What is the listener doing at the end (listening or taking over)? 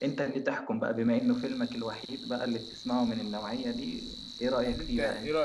taking over